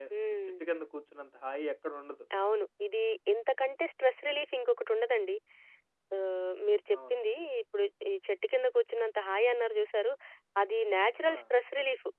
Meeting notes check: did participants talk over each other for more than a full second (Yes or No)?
No